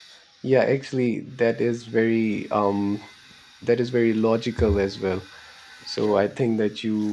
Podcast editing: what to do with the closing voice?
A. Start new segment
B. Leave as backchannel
B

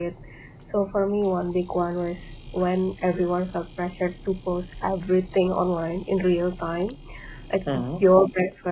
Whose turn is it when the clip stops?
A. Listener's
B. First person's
B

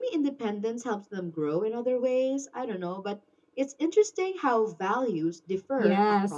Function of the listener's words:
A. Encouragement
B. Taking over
B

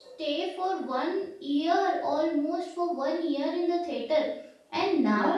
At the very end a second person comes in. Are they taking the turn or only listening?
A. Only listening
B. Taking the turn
A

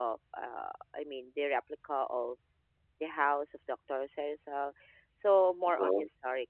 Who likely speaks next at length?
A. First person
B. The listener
A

